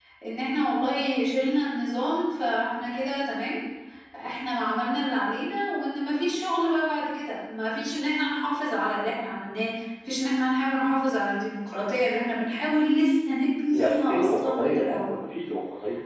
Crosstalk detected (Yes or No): Yes